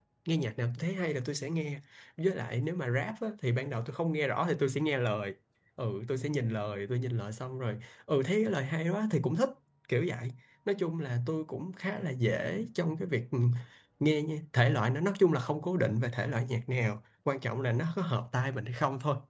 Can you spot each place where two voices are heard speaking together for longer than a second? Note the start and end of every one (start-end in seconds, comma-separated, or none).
none